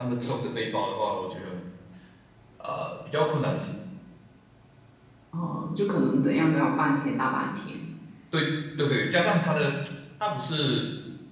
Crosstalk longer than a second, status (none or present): none